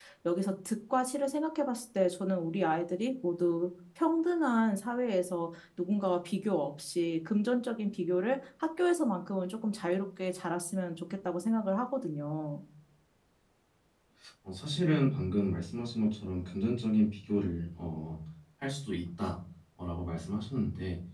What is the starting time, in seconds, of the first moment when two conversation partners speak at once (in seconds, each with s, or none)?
none